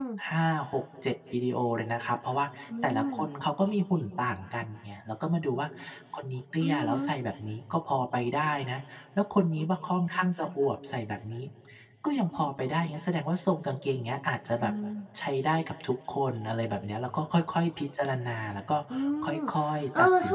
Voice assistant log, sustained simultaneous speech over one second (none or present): none